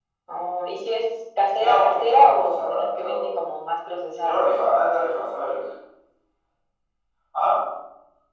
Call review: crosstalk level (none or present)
present